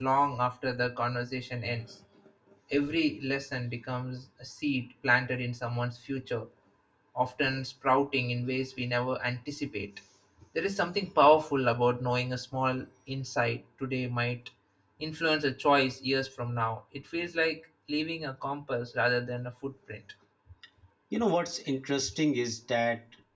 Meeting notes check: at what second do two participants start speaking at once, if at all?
none

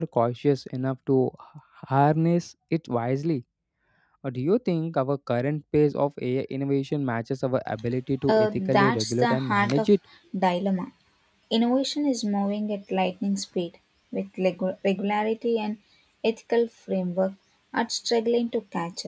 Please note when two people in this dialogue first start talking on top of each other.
8.3 s

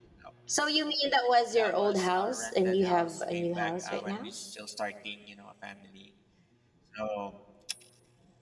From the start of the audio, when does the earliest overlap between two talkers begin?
1.6 s

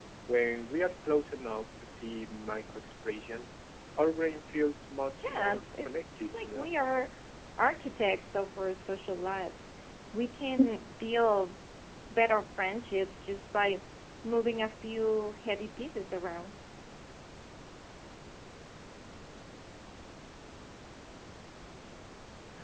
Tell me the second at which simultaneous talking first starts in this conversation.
5.2 s

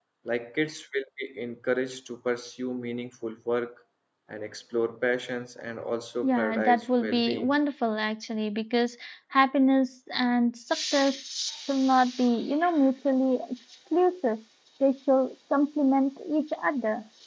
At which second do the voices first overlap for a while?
6.2 s

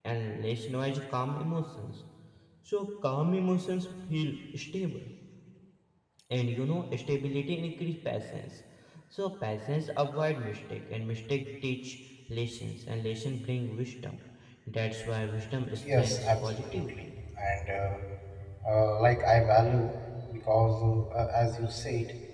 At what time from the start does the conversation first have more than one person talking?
15.7 s

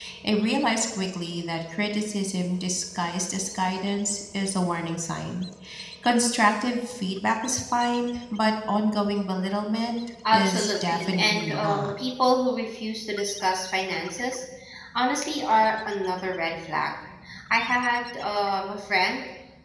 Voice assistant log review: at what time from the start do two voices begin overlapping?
10.2 s

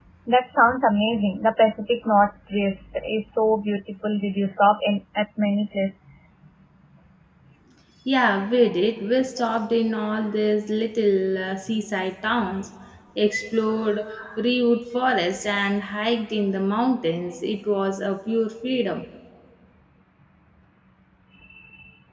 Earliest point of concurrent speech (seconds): none

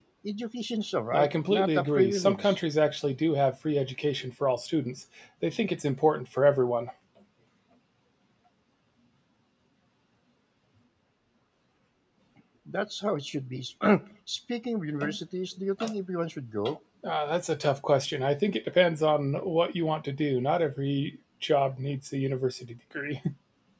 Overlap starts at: 1.1 s

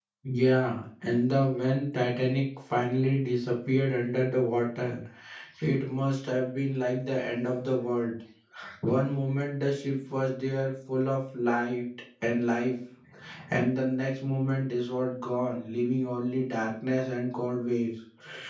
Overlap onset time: none

